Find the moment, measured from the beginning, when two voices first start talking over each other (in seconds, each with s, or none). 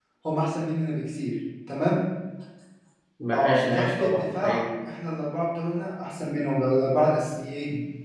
3.3 s